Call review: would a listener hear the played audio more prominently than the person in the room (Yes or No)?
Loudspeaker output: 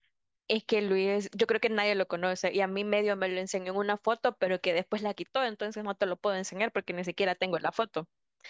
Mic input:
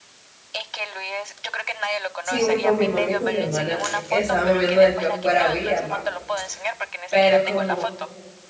No